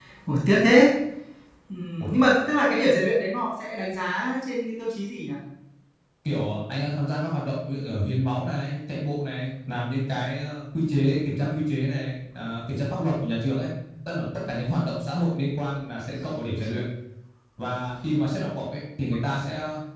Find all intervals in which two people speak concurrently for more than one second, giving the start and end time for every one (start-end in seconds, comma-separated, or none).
none